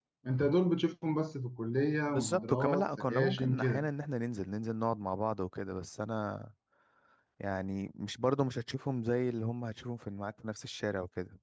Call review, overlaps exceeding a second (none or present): present